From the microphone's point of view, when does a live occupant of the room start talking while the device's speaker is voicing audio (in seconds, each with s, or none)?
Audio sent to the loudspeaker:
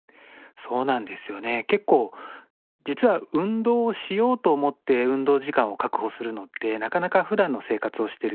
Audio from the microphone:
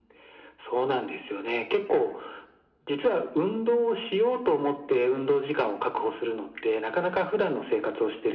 none